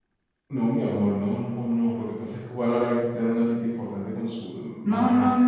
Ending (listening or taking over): taking over